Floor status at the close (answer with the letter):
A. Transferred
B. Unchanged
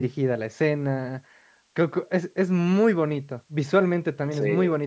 B